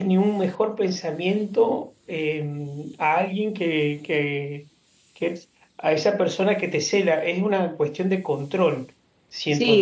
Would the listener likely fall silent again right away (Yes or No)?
No